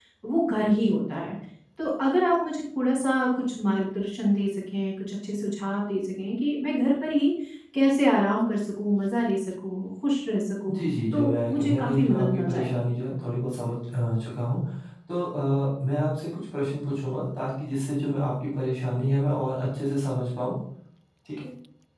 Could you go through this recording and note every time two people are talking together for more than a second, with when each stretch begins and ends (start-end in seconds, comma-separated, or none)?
10.8-12.7